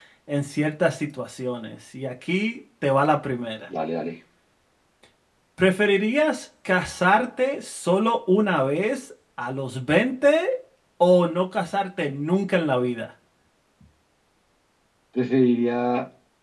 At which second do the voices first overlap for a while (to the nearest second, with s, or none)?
none